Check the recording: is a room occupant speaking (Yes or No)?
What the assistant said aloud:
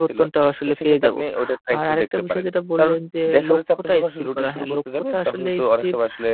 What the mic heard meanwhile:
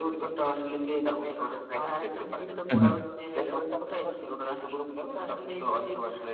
Yes